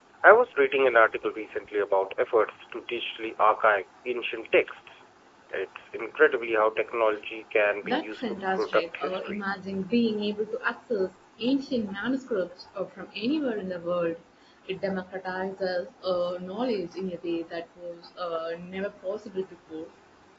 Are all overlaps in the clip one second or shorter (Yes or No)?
No